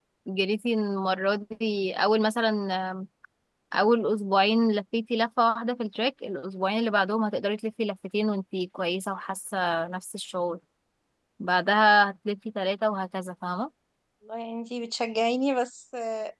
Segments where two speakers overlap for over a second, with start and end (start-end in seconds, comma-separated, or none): none